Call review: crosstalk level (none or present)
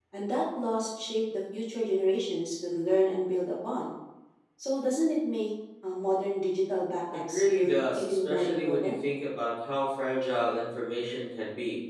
present